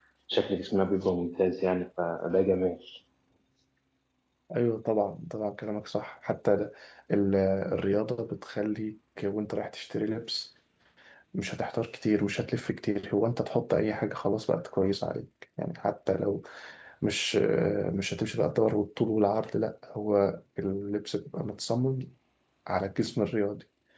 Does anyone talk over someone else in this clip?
No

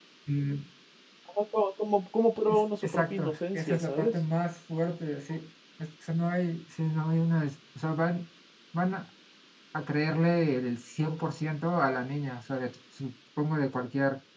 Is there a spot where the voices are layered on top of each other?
Yes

